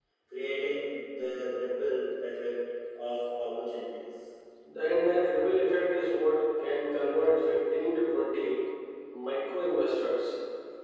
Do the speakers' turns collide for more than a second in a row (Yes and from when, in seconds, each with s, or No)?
No